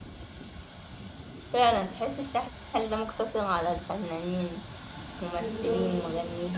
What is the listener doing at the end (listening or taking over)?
taking over